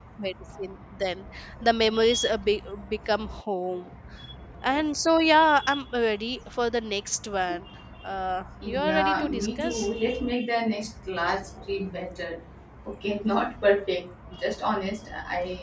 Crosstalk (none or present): present